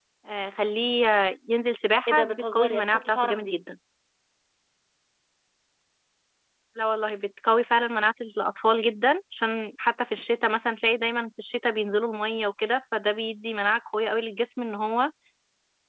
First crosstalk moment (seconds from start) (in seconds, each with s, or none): 2.1 s